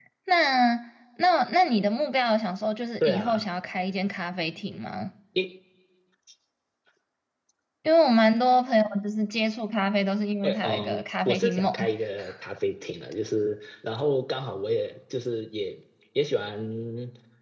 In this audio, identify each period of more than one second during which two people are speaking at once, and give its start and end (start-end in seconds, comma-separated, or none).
10.4-11.7